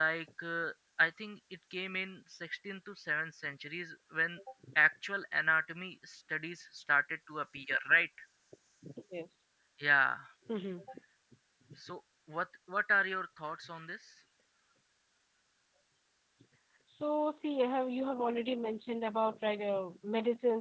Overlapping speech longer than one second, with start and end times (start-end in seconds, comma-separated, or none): none